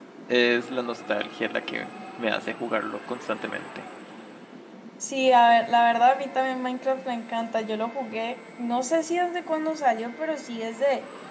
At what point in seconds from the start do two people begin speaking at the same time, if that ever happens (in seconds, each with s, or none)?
none